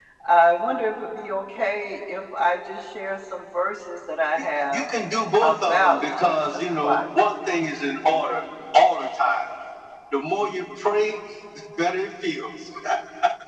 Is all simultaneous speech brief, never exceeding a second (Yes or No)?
No